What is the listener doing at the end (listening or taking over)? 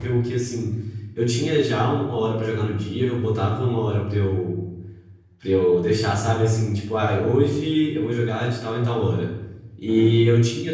listening